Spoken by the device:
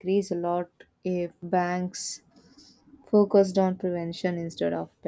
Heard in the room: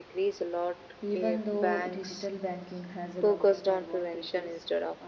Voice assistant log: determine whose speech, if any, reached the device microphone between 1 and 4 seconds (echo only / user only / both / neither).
both